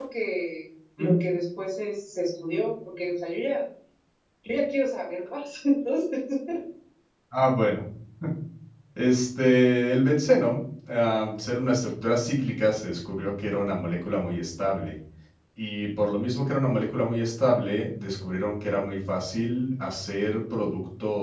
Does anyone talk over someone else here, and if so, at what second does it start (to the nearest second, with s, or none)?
none